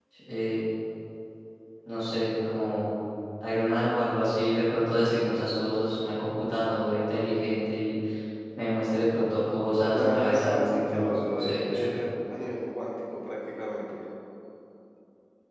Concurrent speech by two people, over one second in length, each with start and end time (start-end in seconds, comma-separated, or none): 9.9-12.0